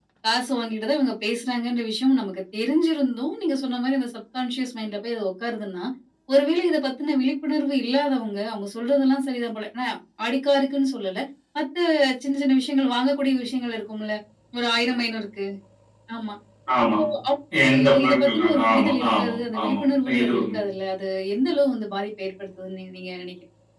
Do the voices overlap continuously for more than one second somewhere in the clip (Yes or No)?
Yes